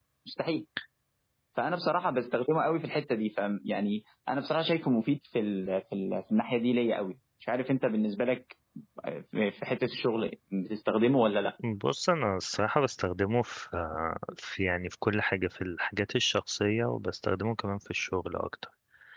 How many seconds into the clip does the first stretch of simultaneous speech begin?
none

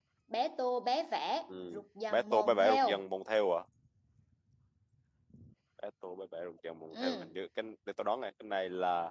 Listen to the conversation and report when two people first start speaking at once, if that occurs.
1.6 s

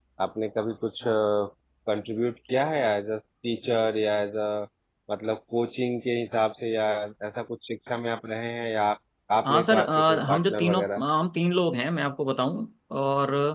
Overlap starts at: 9.4 s

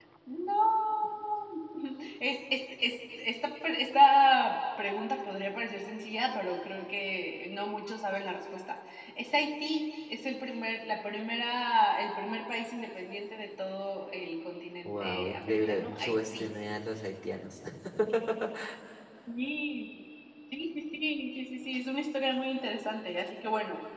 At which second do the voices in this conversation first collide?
14.8 s

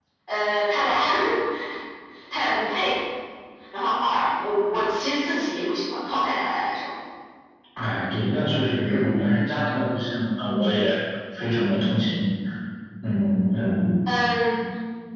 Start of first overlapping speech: none

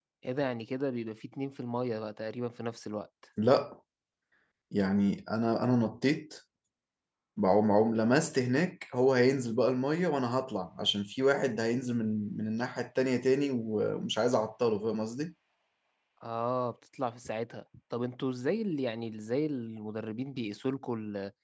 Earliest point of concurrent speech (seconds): none

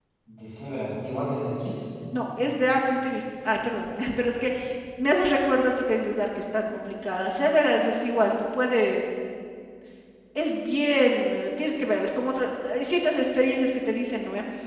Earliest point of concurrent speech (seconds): none

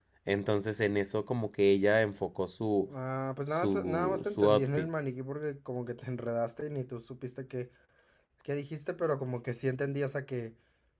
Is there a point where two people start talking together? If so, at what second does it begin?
3.5 s

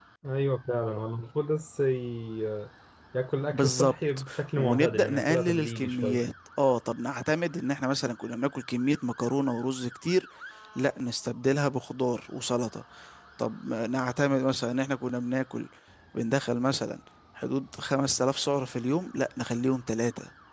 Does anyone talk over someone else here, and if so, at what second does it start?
3.5 s

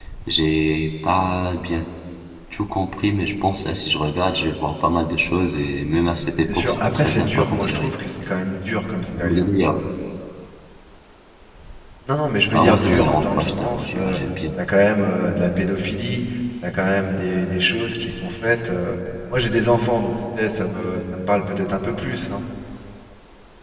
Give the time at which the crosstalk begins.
6.5 s

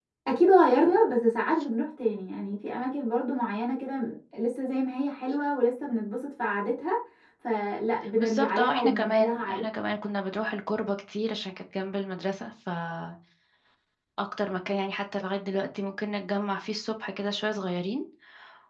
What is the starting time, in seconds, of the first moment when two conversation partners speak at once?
8.2 s

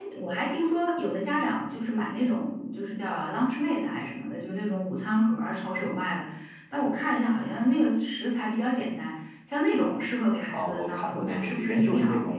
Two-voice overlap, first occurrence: 10.5 s

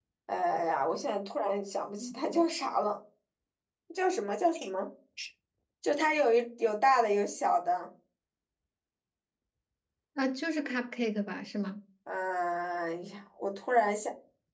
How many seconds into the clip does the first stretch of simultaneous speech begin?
none

